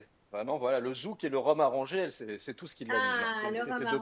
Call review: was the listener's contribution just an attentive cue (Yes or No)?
No